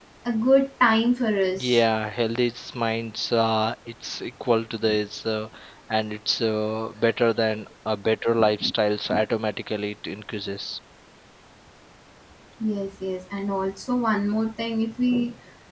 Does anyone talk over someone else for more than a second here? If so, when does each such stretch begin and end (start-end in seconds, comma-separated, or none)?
none